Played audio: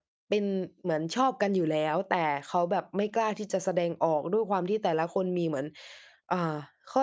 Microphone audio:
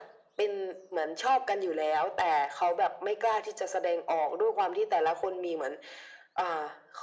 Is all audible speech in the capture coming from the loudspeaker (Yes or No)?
Yes